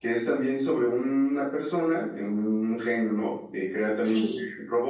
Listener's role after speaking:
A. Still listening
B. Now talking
A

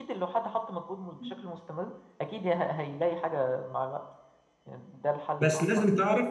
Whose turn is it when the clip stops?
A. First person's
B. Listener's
B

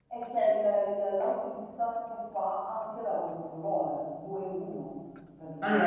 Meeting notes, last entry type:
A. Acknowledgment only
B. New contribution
B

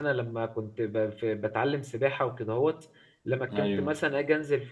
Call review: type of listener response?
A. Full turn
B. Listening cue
B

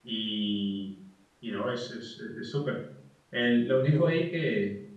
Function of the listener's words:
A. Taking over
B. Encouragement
B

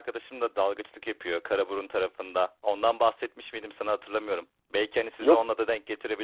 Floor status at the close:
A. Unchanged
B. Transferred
A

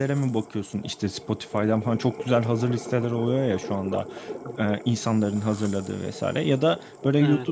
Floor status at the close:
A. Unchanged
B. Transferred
A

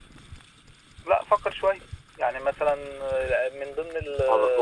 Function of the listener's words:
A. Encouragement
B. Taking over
B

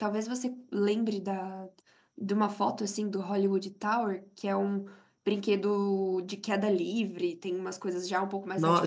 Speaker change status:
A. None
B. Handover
B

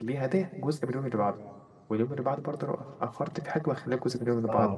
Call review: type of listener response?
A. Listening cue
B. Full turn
B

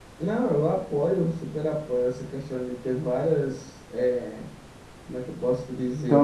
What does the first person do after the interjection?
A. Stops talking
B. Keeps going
A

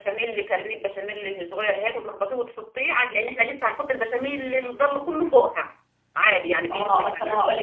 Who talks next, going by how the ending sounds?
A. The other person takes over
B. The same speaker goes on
A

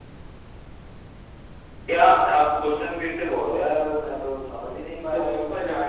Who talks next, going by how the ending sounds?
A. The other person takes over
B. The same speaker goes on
A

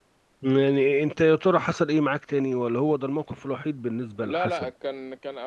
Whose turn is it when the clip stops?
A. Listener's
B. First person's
A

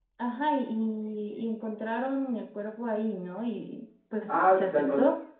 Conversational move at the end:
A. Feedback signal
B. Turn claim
B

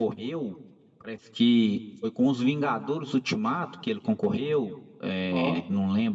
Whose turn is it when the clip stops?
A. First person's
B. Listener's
A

